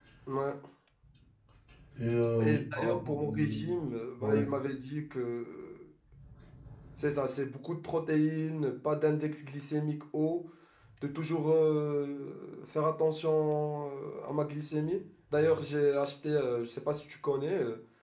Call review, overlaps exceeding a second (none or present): present